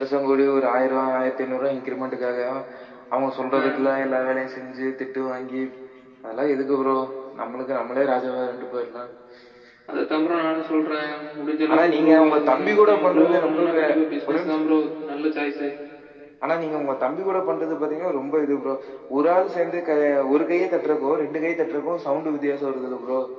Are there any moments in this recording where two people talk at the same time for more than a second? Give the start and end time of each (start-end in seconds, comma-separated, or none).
12.0-13.8